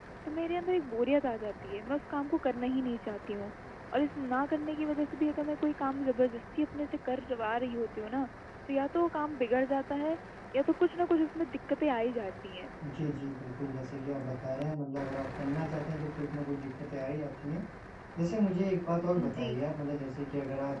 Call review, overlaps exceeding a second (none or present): none